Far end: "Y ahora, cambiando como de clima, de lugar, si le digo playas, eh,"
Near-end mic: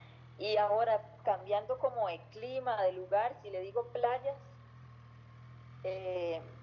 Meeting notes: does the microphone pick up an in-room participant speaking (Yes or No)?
No